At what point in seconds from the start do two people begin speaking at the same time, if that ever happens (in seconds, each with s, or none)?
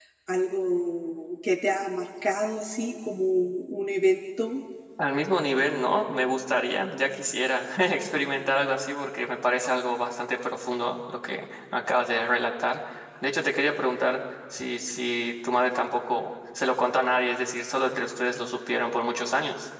none